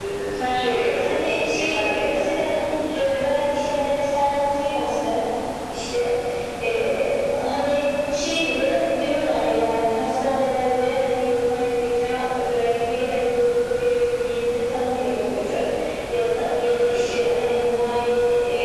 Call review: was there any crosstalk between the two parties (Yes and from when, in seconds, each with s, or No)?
Yes, from 0.6 s